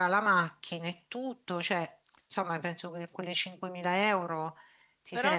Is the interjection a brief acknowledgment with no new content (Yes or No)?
No